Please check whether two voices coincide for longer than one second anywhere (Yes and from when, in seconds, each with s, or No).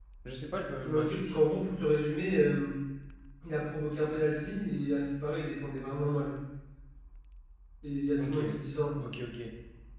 No